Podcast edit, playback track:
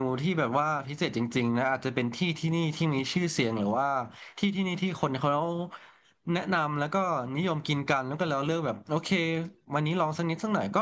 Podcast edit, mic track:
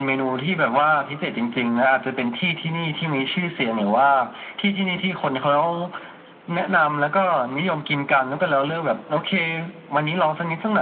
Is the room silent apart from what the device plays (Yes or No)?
Yes